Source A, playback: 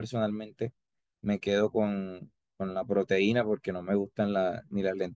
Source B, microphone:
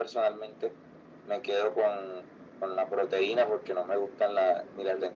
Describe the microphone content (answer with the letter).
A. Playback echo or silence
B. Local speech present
A